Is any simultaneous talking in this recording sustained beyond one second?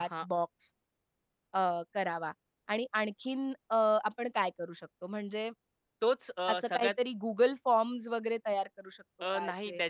No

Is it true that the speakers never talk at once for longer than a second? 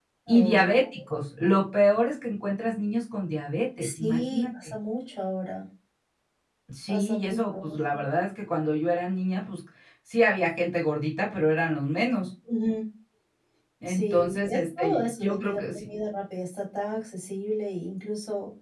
No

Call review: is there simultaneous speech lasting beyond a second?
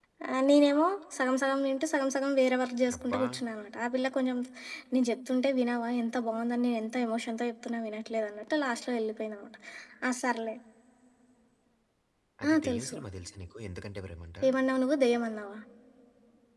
No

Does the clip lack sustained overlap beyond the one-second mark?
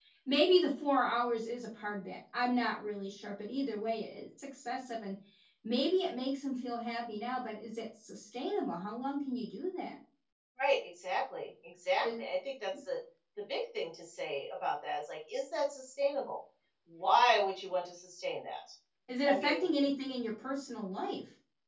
Yes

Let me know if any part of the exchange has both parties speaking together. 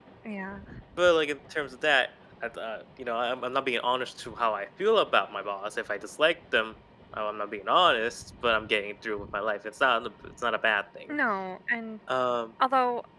No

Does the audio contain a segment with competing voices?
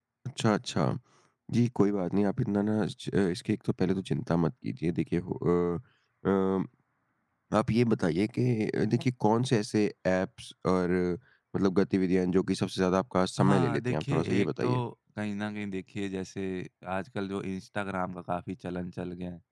Yes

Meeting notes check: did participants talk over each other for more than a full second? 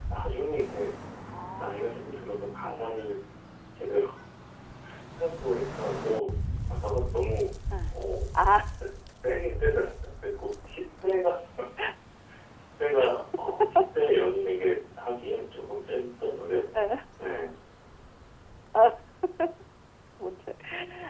No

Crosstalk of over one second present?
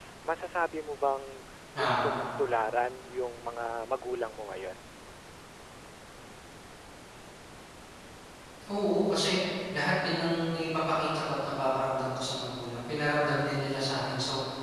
No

